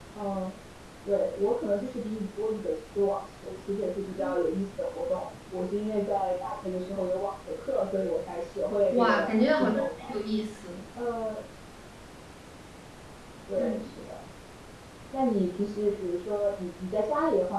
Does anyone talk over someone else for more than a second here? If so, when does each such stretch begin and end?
8.9-10.1

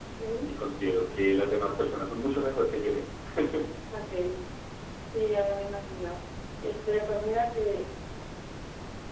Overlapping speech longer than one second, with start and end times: none

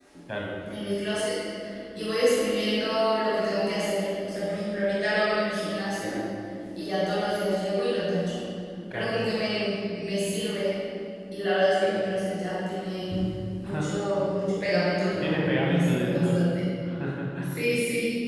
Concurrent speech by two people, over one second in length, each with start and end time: 15.2-16.4

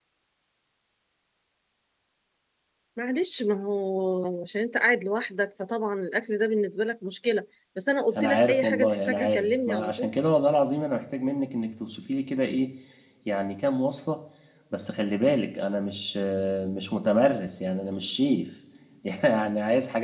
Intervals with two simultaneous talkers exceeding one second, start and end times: 8.2-10.1

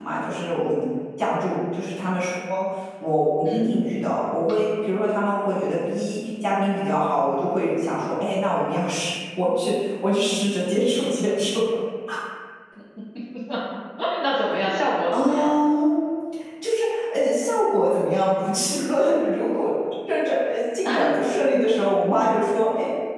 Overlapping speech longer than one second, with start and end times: none

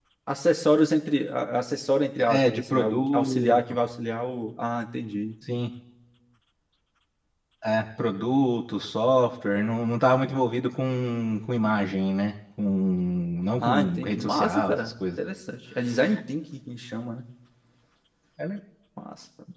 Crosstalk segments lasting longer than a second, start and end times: 2.2-3.6, 13.6-15.1

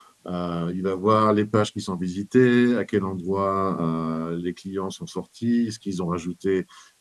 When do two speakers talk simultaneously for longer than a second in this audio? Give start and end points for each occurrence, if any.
none

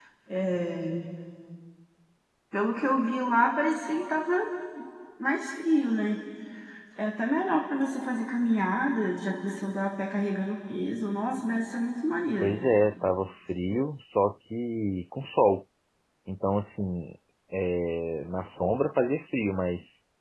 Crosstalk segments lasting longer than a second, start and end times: none

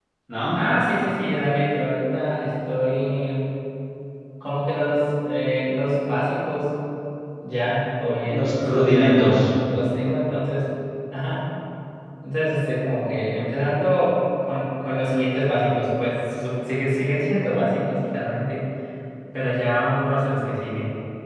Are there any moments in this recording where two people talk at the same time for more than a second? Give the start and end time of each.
8.3-9.5

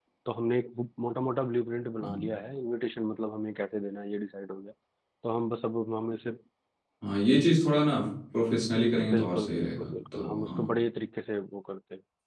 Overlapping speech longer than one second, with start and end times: 9.1-10.7

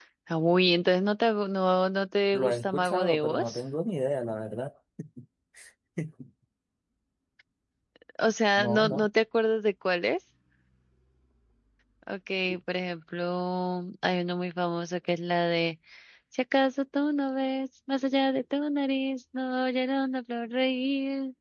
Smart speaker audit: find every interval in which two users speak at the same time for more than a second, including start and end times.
2.3-3.6

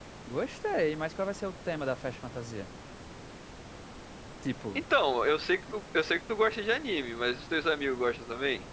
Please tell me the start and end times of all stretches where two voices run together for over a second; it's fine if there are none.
none

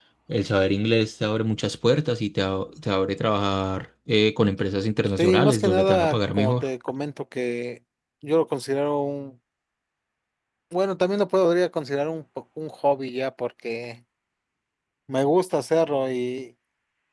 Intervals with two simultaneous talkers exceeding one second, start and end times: 5.2-6.6

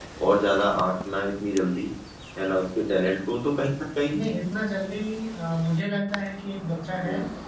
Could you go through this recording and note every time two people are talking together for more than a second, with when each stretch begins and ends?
none

